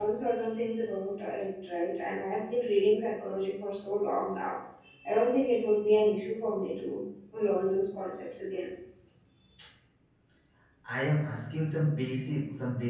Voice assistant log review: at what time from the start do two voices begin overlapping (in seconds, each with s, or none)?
none